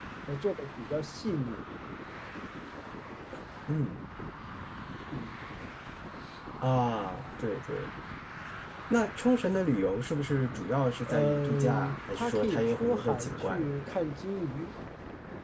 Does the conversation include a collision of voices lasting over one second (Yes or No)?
Yes